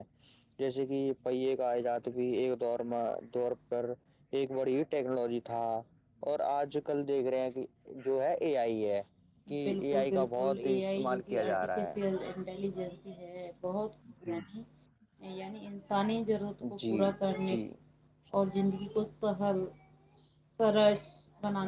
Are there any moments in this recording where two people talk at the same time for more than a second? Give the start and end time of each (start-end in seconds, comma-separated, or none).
9.7-11.9